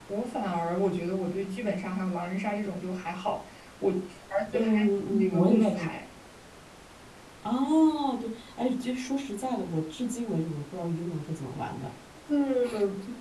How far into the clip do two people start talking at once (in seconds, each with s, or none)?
4.5 s